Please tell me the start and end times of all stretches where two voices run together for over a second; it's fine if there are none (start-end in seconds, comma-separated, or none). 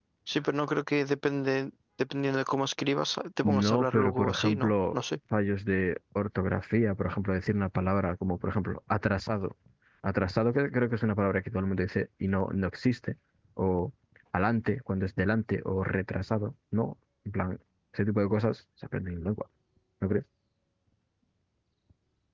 3.4-5.0